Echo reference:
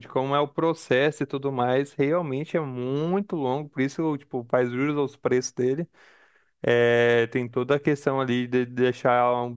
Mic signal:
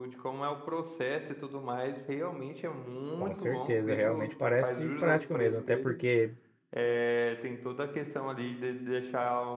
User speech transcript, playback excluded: Com certeza, realmente parece prático mesmo, até porque

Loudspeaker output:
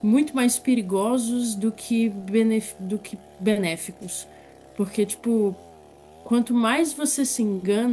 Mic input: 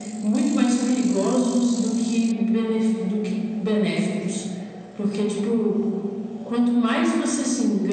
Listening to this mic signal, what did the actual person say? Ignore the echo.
none

